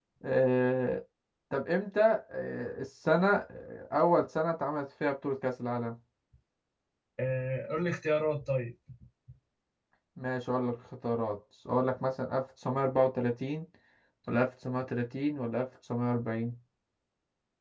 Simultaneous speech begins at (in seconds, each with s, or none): none